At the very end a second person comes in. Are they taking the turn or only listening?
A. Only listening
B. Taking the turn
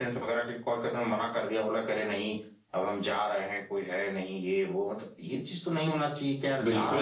B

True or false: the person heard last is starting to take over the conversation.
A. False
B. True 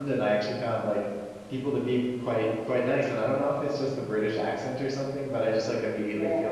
A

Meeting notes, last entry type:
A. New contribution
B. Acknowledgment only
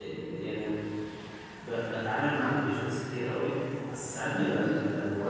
B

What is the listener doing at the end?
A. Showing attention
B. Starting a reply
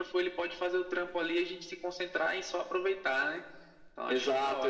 B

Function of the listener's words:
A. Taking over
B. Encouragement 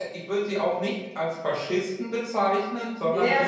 A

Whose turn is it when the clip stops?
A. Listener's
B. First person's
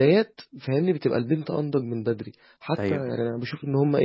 B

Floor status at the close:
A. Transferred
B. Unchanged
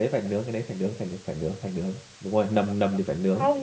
A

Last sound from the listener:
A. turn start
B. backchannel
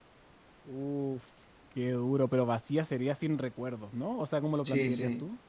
A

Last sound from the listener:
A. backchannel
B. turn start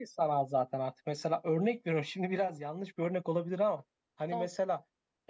A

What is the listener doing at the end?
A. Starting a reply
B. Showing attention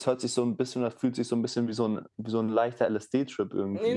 A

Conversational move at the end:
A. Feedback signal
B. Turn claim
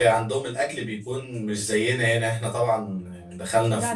A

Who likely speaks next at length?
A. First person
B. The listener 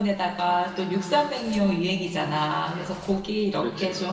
A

